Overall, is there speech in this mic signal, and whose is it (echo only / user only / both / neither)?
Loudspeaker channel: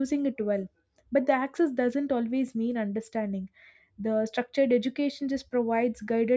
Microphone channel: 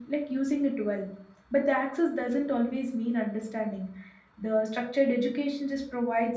echo only